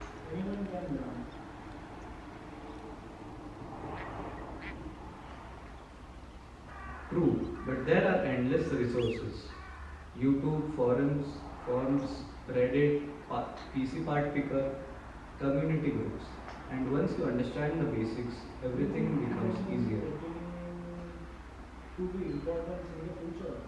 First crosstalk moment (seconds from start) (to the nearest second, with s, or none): 19 s